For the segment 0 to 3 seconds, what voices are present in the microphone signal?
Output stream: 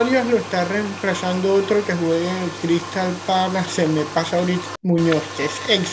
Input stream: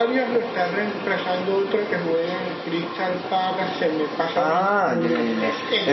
echo only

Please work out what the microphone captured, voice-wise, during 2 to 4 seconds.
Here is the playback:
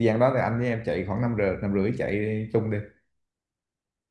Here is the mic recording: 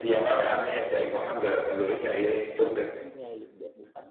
both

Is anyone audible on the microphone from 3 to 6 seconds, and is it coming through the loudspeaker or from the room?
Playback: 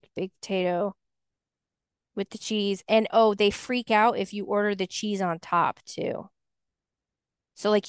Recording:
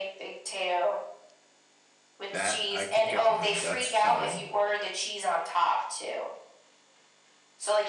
both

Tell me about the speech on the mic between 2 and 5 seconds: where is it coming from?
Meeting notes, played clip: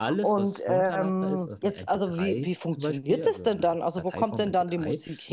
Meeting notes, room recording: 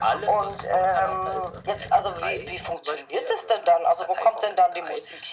echo only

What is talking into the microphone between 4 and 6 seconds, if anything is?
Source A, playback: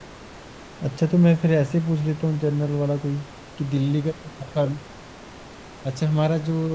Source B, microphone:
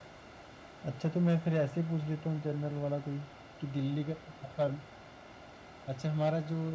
echo only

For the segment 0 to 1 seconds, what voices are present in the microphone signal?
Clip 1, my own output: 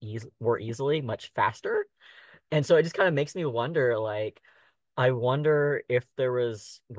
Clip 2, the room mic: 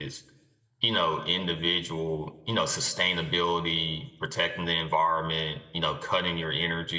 user only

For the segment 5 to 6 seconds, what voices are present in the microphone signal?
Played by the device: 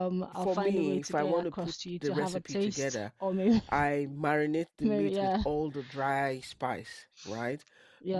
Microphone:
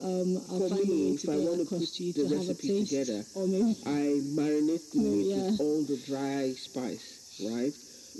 echo only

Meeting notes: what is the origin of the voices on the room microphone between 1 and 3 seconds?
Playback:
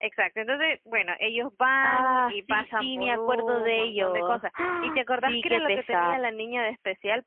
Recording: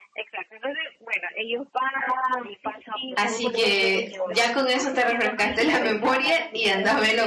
echo only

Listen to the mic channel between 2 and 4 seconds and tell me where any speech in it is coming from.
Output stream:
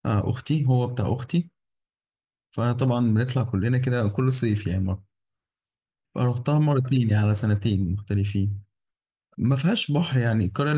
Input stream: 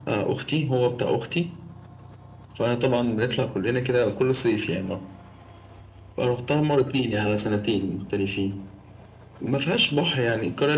echo only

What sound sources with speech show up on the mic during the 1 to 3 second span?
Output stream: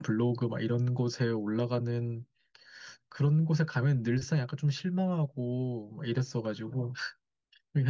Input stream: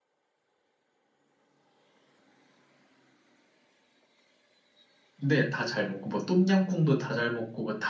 neither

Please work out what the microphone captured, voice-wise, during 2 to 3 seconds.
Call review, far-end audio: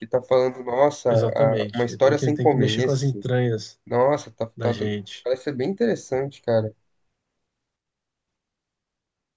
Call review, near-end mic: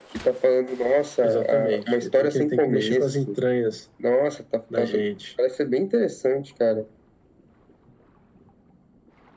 echo only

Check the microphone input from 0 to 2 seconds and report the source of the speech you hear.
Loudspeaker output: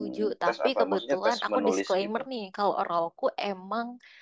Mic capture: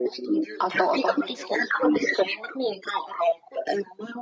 both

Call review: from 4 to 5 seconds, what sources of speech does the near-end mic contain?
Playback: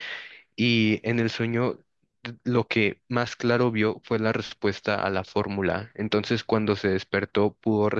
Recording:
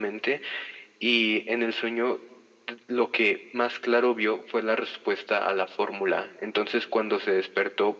echo only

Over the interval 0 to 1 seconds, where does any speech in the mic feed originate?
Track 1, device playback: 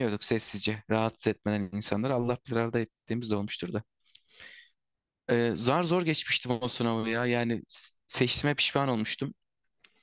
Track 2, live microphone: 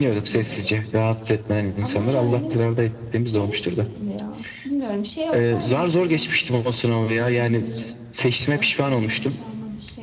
both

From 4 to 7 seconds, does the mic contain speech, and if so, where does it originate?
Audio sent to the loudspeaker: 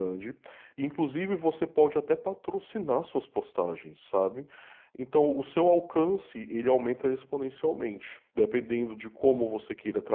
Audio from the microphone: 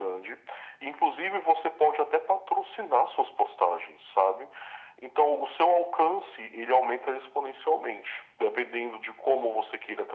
echo only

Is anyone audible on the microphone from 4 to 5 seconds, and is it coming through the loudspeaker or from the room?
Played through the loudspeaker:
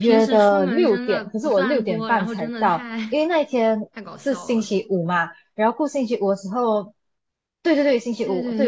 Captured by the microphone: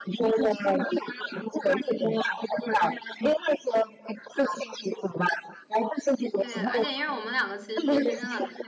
echo only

